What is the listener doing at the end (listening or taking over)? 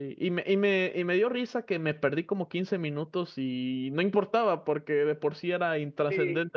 taking over